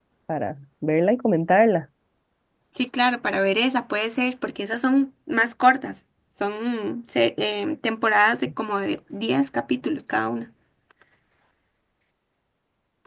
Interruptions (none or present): none